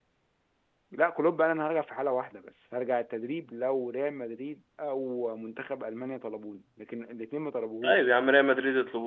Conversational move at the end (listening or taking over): taking over